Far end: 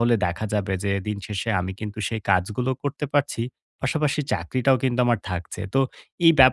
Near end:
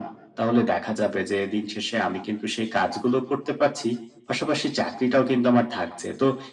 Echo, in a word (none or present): present